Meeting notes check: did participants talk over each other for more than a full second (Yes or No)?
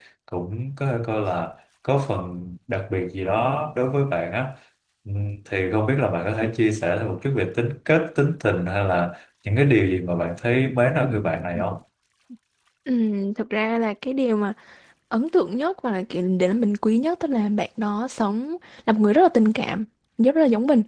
No